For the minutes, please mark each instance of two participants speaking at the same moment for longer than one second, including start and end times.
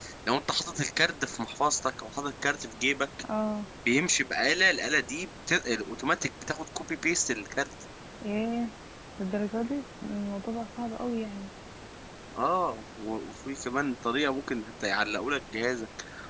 none

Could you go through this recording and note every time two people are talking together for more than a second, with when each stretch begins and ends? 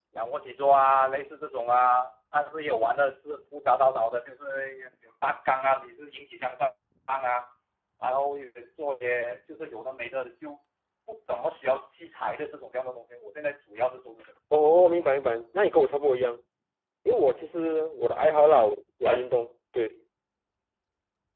none

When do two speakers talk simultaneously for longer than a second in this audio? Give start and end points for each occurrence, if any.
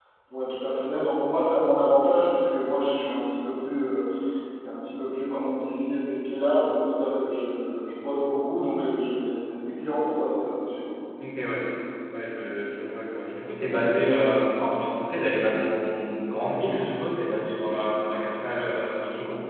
none

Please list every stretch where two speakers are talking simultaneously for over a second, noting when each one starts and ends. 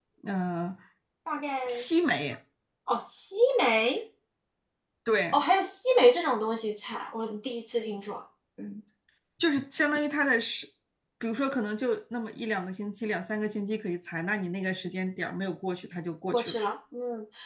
none

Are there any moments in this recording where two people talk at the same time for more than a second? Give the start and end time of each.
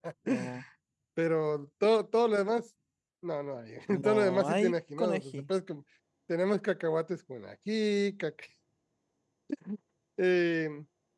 3.9-5.4

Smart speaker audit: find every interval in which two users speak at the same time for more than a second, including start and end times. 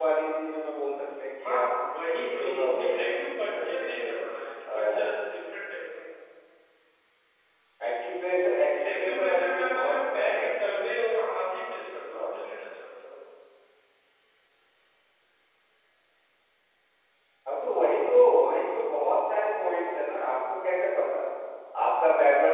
2.2-4.1, 8.8-10.7

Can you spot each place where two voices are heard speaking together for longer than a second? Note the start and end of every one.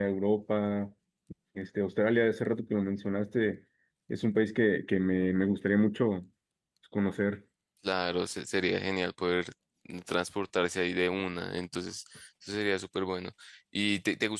none

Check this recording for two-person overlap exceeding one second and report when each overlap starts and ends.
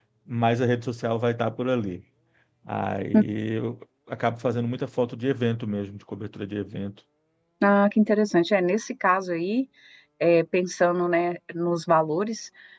none

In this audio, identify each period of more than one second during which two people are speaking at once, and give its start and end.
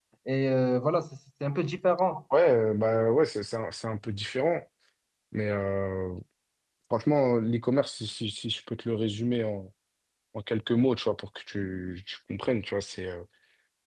none

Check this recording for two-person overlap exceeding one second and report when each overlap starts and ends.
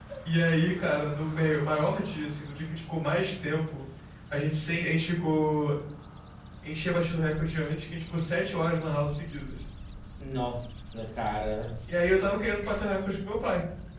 none

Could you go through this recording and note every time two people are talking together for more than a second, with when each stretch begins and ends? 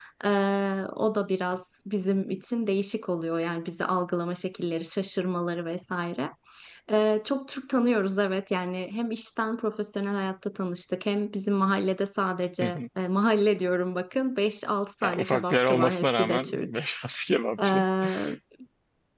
15.0-16.8

